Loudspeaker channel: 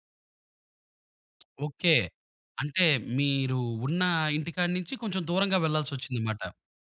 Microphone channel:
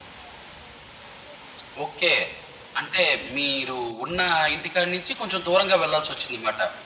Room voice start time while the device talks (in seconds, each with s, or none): none